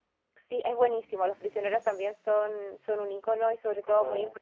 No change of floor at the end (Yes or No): Yes